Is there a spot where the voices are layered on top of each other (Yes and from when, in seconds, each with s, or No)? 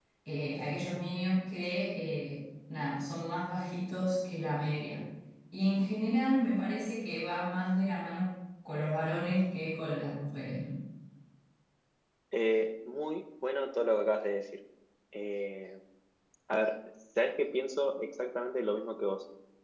No